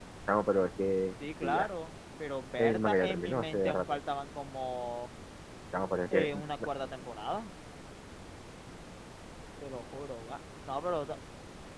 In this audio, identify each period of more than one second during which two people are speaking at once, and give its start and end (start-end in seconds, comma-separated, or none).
2.6-4.0